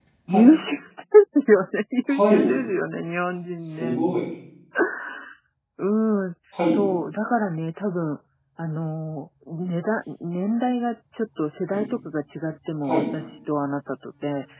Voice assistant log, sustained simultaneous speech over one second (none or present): none